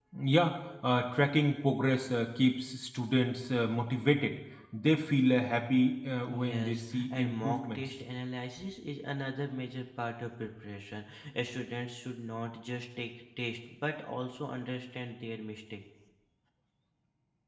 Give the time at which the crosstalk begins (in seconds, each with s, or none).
6.3 s